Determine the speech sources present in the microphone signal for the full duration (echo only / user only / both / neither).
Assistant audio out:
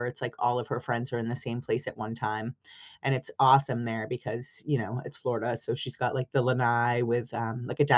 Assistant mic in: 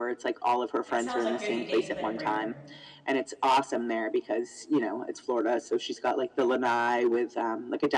both